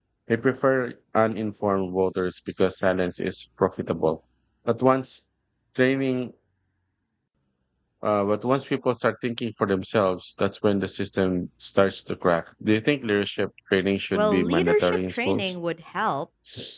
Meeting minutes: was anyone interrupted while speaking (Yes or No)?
Yes